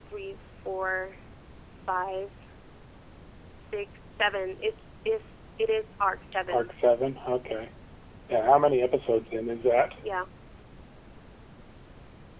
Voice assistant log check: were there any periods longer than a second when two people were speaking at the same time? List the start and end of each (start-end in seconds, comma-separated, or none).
none